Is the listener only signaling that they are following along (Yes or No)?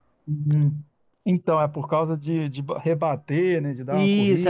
No